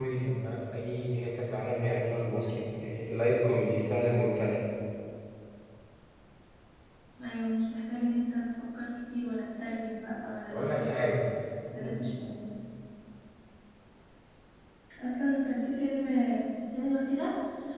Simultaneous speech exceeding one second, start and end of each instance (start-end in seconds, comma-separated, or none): none